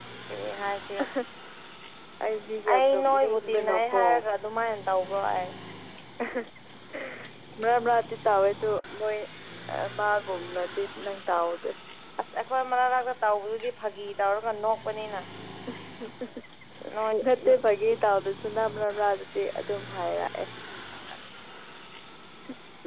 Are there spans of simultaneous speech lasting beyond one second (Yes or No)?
Yes